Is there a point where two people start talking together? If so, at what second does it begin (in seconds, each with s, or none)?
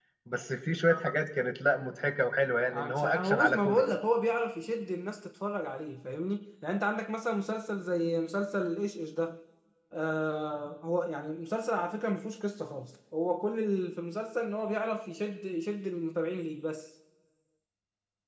2.7 s